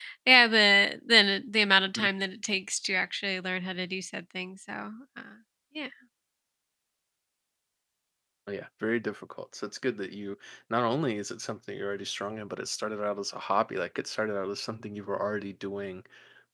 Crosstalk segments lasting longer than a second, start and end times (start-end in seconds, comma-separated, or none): none